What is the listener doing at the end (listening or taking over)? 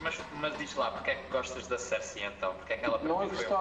taking over